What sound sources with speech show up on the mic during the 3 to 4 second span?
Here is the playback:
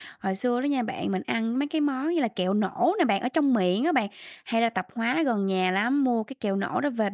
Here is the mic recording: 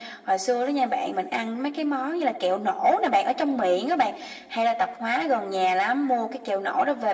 echo only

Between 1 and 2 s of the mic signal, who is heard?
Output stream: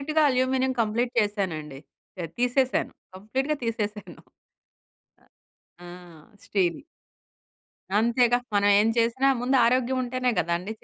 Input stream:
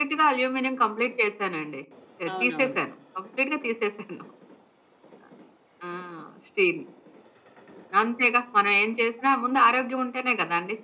echo only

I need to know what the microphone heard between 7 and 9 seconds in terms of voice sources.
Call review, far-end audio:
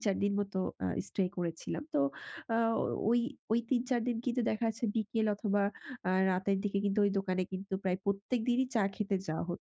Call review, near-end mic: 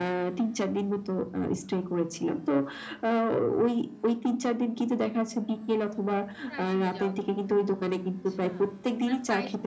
both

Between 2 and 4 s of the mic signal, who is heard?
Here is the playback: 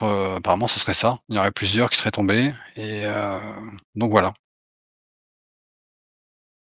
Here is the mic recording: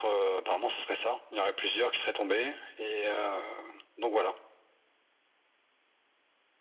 echo only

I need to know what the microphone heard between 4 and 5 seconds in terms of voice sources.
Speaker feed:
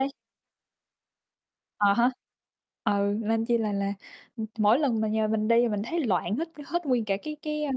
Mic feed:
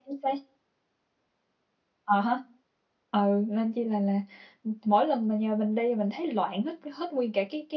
echo only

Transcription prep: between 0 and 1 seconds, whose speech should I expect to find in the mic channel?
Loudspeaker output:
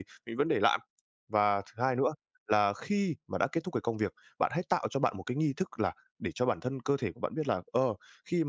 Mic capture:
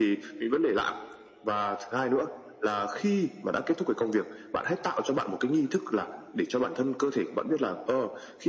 echo only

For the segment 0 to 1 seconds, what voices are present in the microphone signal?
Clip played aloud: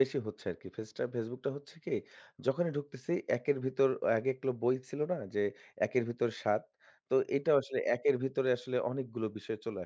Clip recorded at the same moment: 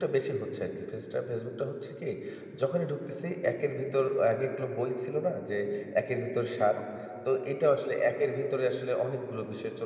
echo only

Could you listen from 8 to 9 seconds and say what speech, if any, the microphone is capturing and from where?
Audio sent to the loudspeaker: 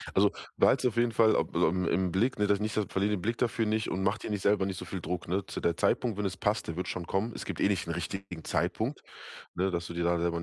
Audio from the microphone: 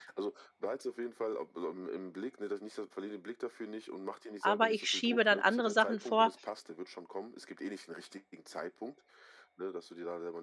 echo only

